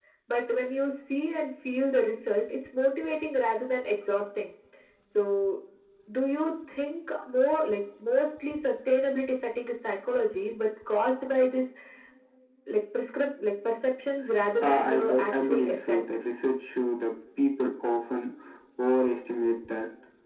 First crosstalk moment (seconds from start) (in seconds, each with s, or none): 14.6 s